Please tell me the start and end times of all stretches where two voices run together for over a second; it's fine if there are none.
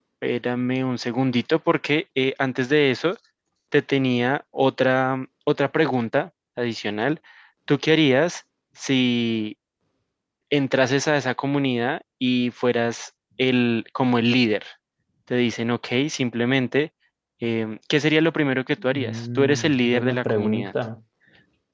18.9-20.7

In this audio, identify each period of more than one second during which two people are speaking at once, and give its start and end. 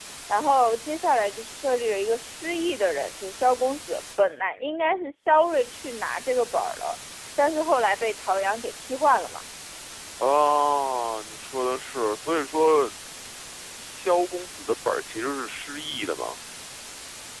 none

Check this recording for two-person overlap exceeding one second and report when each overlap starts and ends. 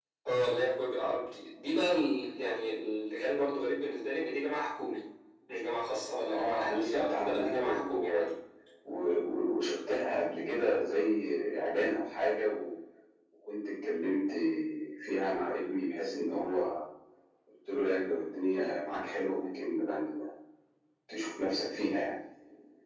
6.3-8.1

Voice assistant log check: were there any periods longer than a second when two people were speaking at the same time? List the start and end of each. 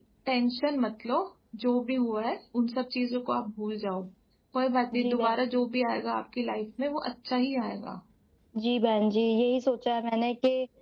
none

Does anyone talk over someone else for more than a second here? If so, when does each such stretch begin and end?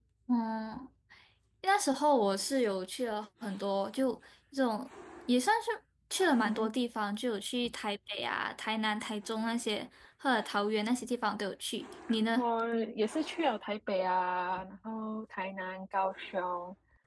none

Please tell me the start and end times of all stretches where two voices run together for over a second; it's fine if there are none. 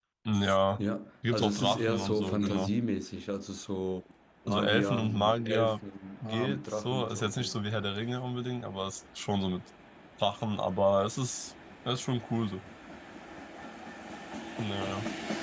1.3-2.7, 4.5-5.8, 6.2-7.5

